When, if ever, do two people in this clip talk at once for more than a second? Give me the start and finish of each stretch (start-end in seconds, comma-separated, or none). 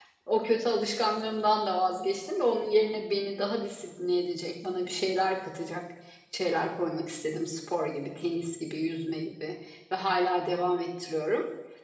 none